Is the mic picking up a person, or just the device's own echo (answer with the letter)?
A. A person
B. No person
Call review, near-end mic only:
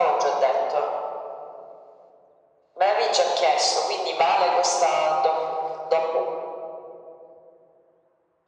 B